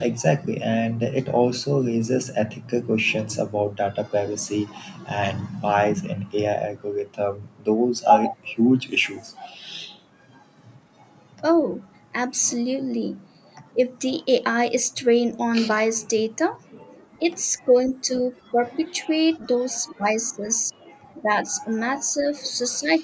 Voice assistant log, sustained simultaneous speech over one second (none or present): none